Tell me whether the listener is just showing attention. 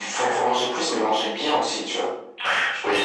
No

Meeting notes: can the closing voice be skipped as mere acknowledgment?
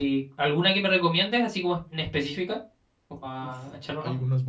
No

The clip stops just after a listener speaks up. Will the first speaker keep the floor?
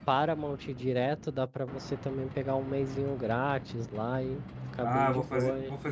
No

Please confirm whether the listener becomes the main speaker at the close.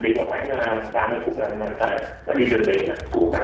Yes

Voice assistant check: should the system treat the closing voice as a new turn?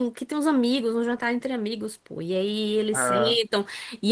No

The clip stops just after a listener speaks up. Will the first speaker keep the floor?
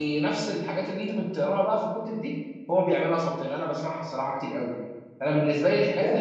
Yes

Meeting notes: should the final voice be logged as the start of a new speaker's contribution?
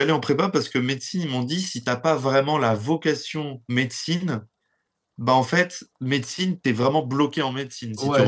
Yes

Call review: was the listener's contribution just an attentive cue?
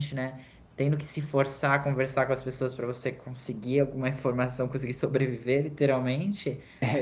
No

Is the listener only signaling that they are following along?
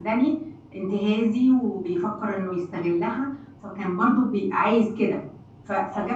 Yes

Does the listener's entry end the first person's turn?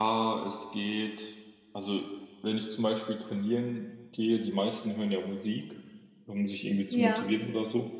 No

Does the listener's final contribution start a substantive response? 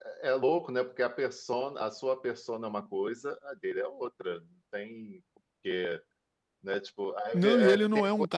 Yes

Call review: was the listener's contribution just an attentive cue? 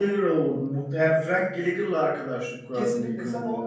No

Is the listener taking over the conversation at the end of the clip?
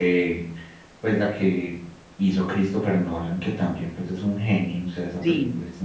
Yes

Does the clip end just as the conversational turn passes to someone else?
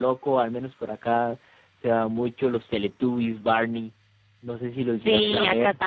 Yes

